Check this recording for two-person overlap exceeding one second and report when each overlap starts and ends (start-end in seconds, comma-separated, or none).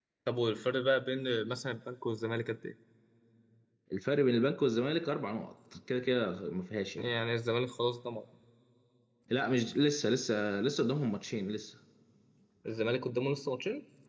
none